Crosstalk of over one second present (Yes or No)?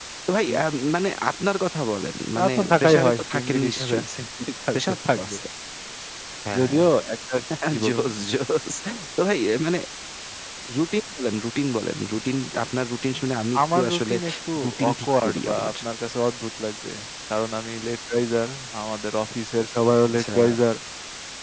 Yes